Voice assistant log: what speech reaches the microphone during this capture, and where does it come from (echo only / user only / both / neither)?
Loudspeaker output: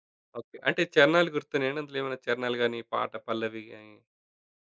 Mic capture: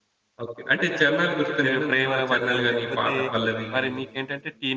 both